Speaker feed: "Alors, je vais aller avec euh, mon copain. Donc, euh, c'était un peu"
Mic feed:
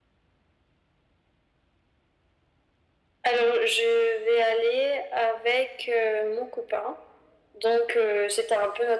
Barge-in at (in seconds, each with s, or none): none